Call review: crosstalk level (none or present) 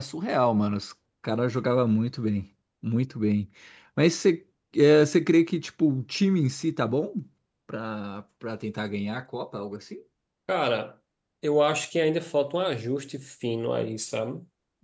none